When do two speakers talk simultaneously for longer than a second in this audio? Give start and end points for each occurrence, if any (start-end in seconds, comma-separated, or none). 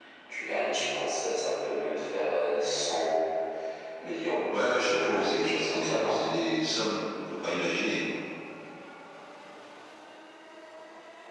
4.8-6.2